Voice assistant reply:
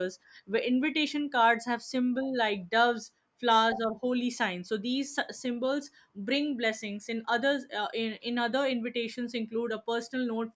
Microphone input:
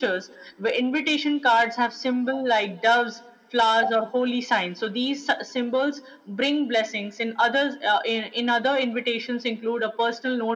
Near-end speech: none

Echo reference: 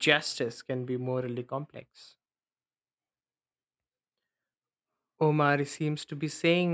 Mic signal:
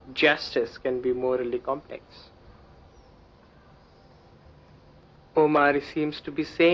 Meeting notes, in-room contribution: none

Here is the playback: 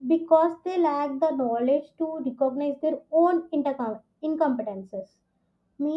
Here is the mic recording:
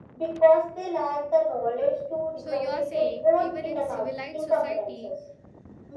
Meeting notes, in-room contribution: present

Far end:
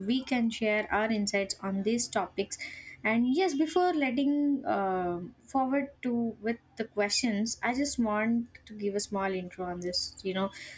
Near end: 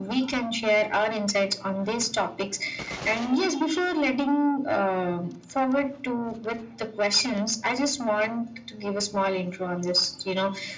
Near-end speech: none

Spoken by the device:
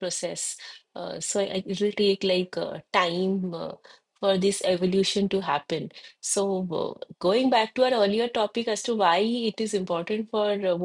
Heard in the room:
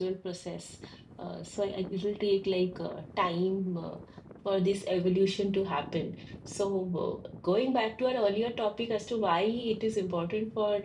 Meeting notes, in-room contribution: none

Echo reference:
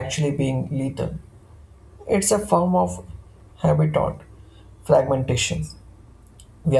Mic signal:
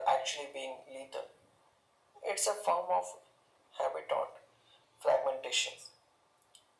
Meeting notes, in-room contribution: none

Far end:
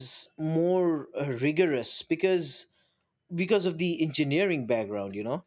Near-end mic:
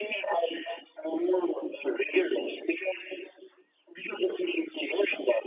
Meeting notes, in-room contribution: none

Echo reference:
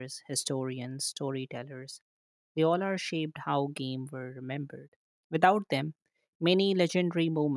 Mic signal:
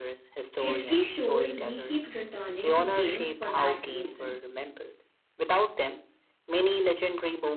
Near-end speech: present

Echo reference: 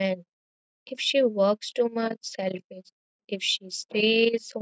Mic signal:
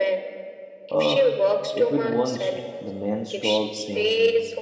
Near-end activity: present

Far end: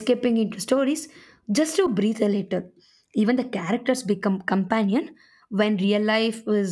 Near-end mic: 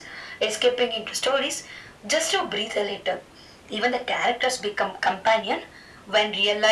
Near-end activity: none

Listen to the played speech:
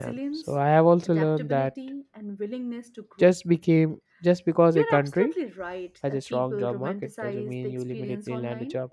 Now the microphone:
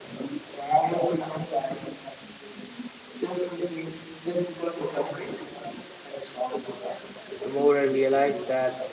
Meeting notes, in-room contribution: present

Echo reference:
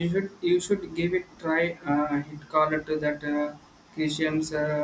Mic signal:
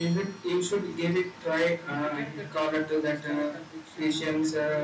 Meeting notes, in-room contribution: present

